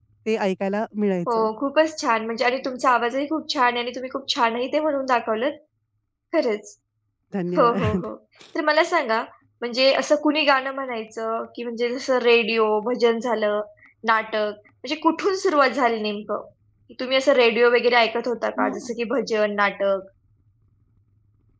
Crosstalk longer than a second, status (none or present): none